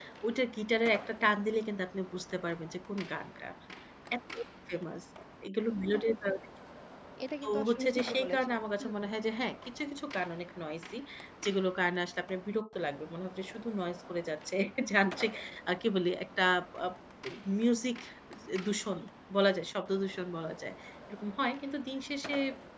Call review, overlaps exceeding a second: present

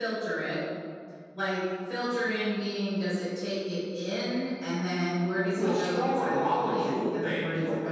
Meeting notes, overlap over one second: present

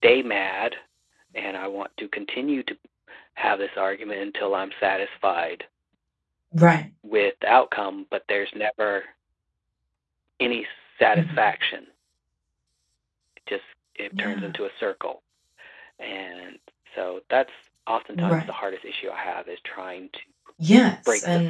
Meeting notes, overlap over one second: none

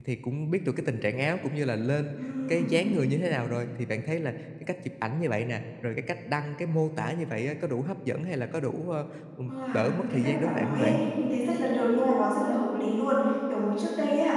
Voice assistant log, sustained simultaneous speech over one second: present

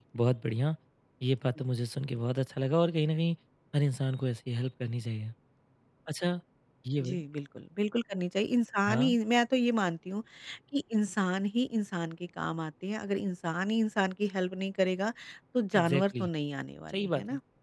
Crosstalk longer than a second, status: none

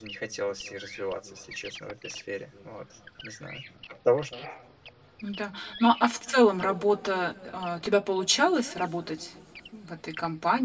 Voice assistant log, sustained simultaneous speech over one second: none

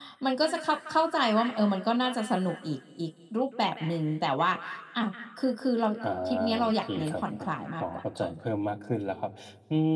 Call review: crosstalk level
present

